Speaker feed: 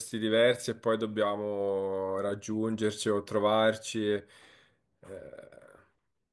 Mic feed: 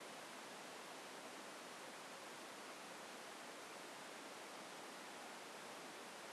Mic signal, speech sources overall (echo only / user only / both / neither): neither